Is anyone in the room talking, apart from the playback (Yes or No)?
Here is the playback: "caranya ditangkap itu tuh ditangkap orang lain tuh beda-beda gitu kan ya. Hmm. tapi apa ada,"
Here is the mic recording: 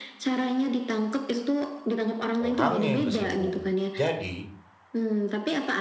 Yes